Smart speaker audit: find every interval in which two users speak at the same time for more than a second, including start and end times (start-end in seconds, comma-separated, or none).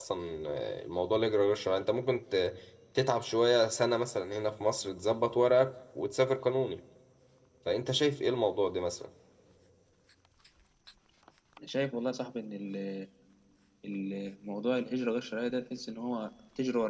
none